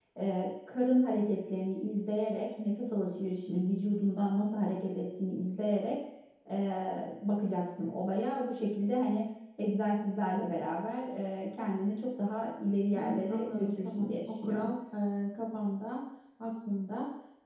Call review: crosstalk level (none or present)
present